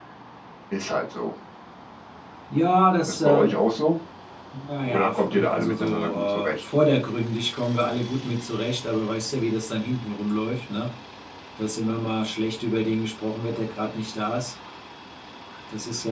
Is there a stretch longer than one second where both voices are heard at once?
Yes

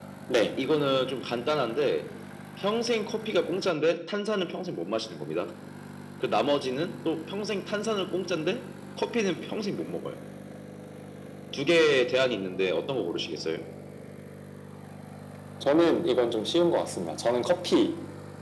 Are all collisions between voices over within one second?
Yes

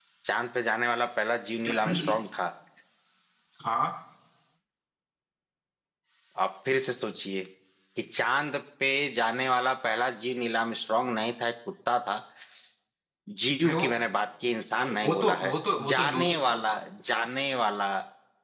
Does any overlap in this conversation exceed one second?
Yes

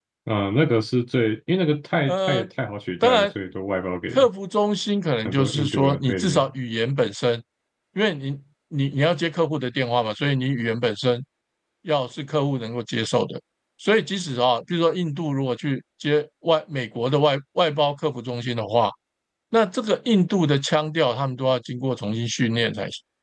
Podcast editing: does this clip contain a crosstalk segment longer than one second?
Yes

